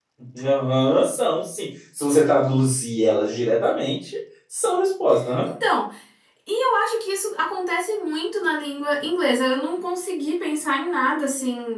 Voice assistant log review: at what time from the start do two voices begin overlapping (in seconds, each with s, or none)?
none